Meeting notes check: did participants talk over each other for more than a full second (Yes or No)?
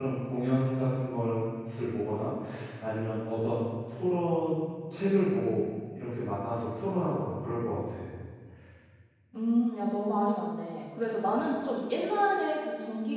No